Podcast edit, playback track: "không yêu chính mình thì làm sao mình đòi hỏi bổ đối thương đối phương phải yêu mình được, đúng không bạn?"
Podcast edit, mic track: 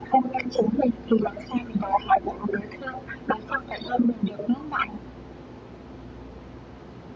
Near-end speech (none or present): none